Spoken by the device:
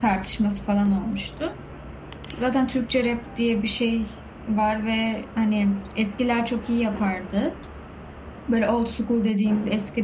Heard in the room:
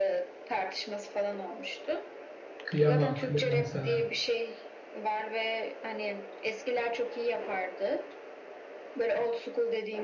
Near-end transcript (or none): Kıyamam kıyamam sana.